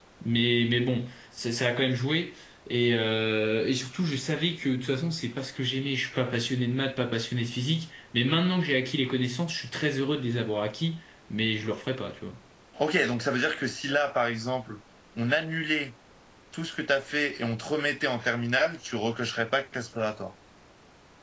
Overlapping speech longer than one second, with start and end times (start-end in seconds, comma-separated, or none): none